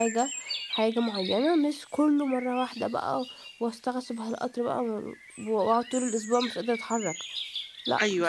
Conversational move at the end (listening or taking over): taking over